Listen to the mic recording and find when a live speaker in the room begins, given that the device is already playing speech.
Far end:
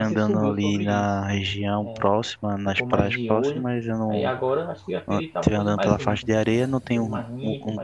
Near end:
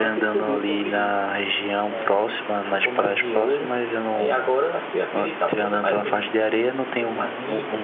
none

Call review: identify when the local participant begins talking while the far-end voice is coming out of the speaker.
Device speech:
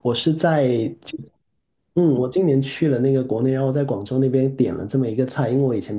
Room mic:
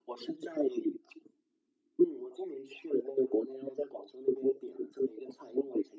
none

